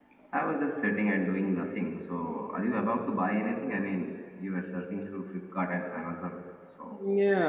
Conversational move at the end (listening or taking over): taking over